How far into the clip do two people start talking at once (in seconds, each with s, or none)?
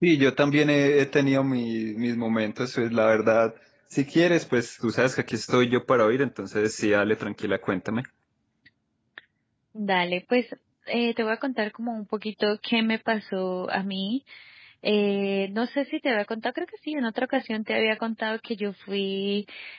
none